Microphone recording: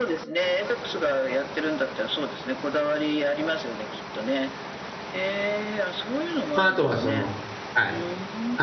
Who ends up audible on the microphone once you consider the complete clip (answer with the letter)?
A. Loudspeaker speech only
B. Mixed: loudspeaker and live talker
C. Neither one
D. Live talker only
B